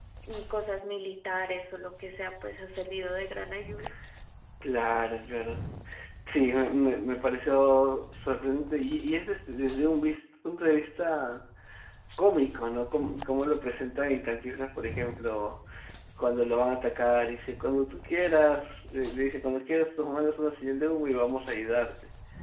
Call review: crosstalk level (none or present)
none